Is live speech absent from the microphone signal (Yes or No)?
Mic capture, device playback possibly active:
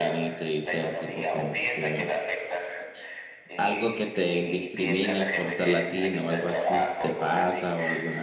No